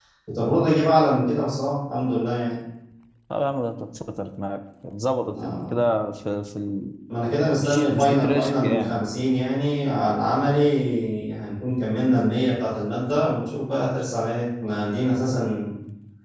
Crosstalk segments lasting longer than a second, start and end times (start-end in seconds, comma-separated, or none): 7.6-9.0